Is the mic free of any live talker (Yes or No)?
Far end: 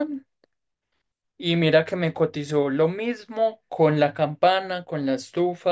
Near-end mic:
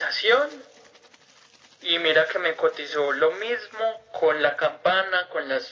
Yes